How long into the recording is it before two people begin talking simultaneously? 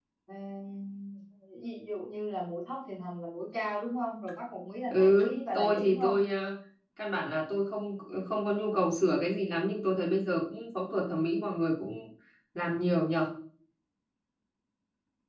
5 s

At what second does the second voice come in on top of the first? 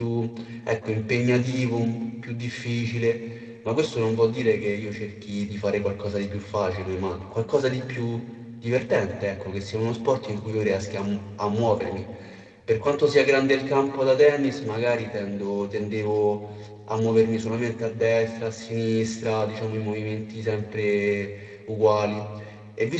none

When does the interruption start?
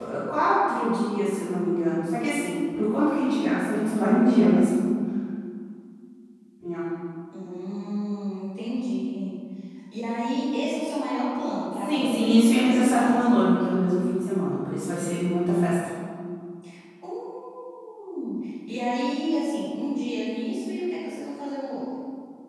12 s

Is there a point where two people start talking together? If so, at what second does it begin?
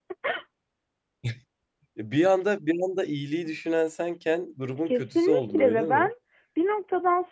5 s

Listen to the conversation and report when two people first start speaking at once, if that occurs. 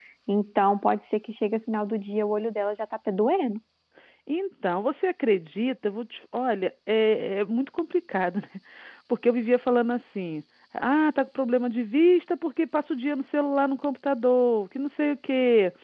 none

